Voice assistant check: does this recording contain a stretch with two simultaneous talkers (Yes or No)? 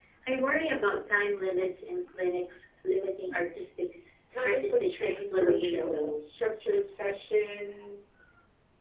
Yes